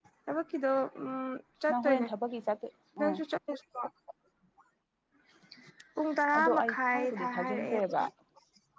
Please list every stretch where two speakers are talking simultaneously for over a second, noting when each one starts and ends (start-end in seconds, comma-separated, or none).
6.3-8.0